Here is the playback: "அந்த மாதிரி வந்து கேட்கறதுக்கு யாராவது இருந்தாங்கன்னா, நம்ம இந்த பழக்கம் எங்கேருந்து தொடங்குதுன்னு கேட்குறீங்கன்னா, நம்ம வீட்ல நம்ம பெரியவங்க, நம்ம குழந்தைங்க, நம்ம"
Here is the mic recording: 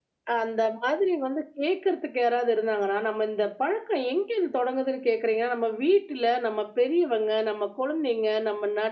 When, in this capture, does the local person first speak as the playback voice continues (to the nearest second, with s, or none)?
none